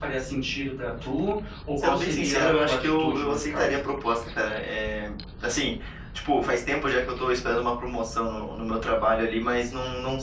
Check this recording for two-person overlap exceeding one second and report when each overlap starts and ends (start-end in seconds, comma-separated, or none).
1.8-3.8